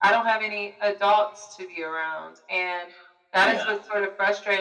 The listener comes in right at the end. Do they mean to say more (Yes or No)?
No